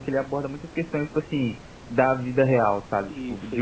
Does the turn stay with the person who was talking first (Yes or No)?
Yes